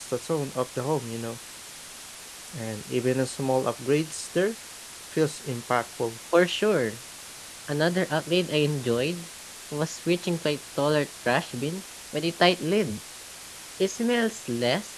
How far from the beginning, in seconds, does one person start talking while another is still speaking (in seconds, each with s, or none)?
none